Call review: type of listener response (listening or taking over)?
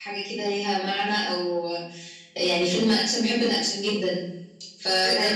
listening